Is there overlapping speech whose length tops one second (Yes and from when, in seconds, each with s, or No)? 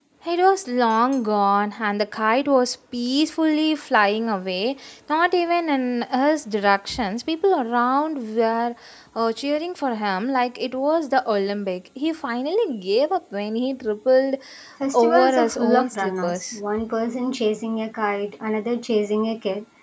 Yes, from 14.9 s